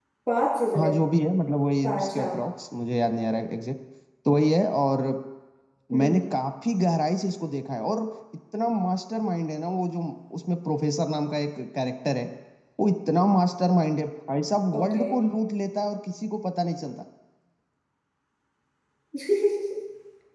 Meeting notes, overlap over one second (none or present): none